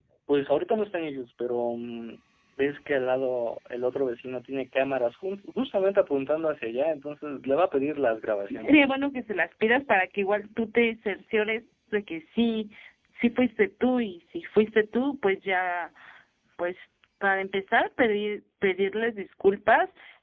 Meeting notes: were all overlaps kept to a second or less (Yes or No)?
Yes